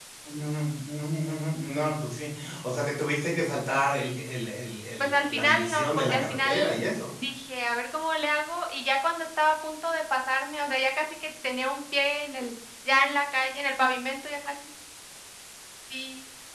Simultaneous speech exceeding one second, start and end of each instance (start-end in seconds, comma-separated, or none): 5.0-6.8